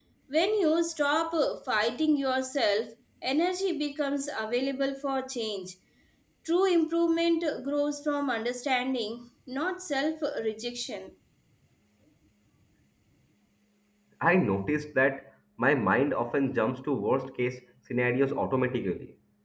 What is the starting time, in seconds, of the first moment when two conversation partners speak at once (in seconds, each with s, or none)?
none